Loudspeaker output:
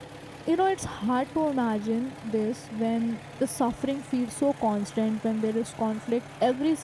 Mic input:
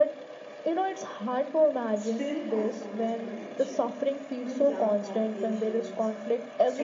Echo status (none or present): present